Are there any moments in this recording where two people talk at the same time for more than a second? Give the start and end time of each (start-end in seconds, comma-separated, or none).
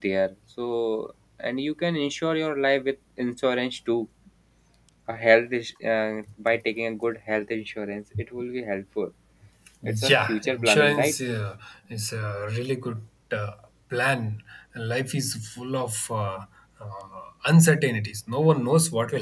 9.9-11.1